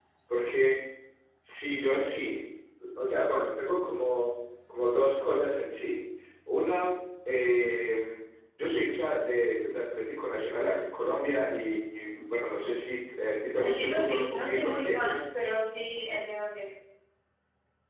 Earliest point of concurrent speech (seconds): 14 s

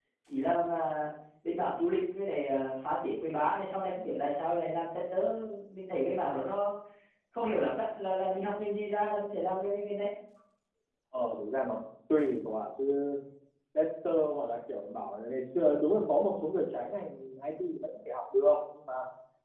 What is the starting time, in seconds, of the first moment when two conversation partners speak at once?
none

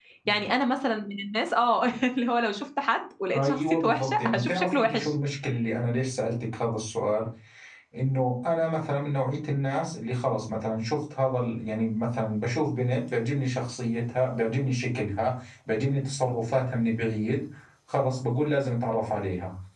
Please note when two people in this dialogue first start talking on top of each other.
3 s

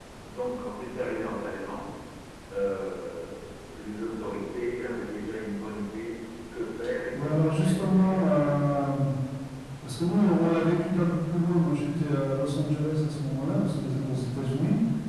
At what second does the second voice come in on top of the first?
7 s

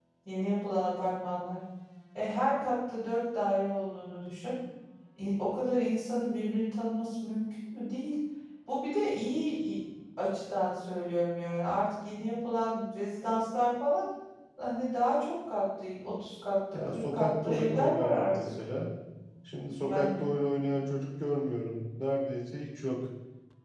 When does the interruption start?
17 s

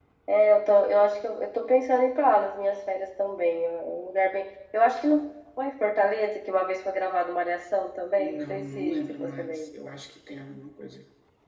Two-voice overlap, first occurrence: 8 s

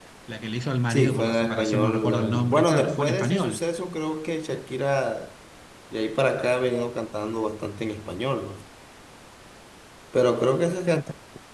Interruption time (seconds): 1 s

